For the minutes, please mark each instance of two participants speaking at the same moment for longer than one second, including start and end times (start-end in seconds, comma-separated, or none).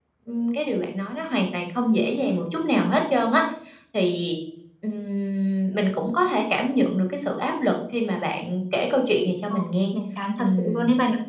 none